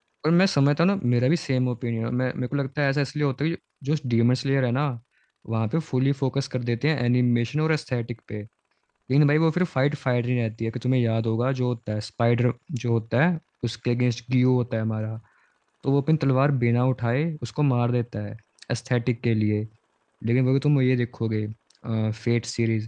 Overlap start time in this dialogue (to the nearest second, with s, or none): none